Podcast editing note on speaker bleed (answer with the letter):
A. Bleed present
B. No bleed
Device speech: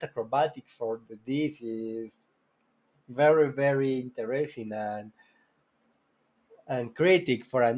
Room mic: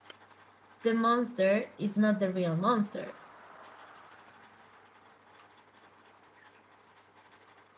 B